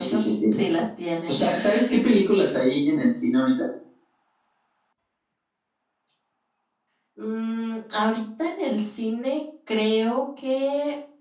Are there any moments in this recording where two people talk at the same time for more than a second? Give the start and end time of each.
none

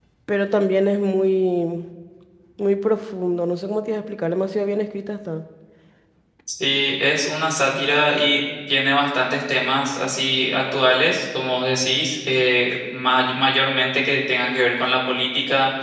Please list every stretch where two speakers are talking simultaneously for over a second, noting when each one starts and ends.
none

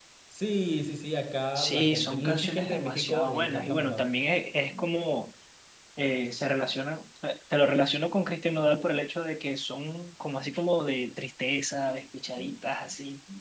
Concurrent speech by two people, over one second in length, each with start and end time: 1.6-4.0

